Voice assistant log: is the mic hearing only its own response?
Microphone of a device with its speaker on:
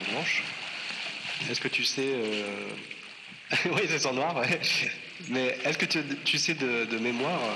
Yes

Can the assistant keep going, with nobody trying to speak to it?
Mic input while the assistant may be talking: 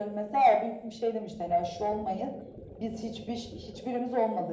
Yes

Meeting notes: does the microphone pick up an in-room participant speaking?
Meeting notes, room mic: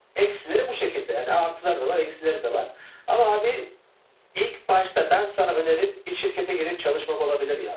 No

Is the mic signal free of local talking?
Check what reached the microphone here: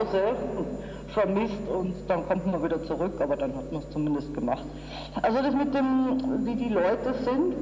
Yes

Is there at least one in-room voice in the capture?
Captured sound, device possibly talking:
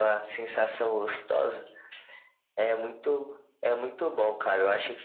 No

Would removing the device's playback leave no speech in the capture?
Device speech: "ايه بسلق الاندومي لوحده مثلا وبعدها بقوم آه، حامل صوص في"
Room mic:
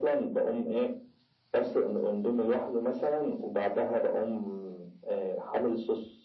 Yes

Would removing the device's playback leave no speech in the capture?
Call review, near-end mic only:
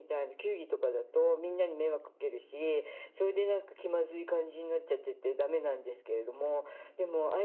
Yes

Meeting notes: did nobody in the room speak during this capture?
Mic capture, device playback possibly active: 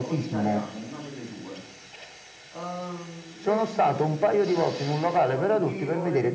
No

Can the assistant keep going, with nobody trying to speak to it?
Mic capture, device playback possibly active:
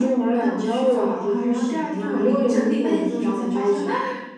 Yes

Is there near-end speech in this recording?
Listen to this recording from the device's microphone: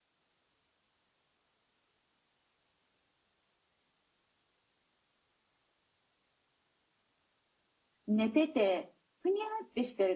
Yes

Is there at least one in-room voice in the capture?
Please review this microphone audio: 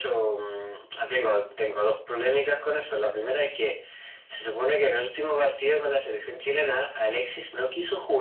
No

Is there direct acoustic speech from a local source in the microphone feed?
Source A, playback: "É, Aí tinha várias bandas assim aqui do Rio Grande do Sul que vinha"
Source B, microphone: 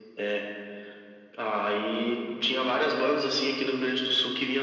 No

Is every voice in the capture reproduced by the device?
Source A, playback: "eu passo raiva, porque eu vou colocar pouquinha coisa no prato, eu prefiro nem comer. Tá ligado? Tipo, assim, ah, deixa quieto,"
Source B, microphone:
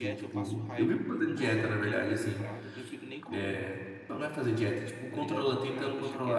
No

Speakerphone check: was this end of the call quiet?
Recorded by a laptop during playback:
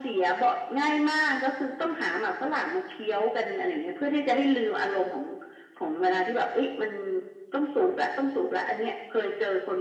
Yes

